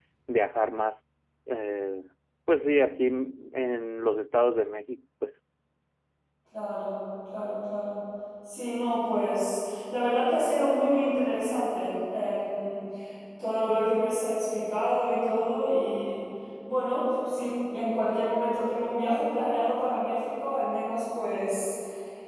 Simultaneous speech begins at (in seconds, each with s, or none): none